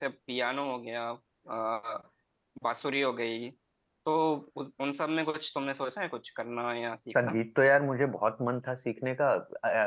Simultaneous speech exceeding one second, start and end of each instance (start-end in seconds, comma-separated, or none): none